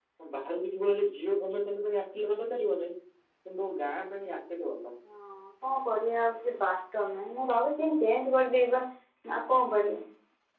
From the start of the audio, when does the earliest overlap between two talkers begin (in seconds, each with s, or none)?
none